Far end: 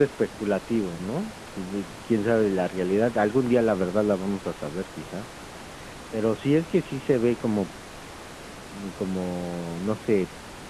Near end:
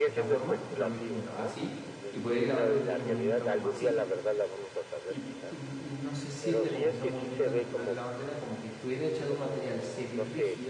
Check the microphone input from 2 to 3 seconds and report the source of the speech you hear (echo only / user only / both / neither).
both